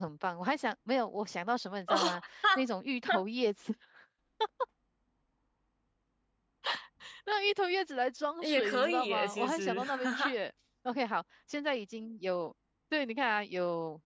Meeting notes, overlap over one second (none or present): present